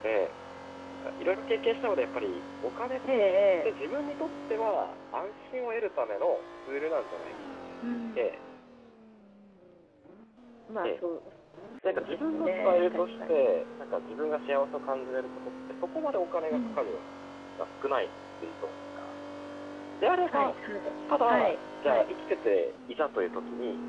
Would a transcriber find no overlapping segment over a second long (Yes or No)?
No